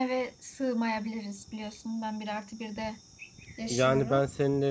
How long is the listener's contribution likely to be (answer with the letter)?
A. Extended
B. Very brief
A